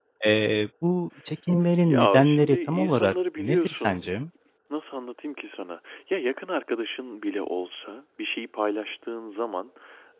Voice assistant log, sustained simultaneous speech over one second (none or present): present